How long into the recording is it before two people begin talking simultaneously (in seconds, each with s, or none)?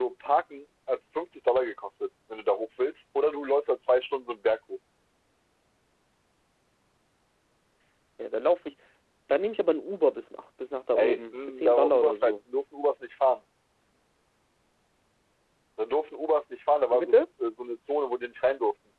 10.9 s